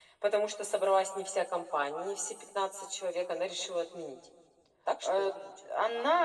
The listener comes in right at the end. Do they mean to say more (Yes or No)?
Yes